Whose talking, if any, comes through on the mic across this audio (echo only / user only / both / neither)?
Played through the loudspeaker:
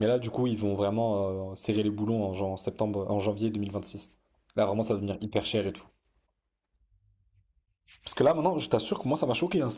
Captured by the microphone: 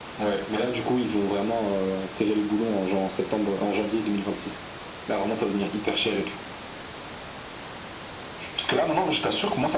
echo only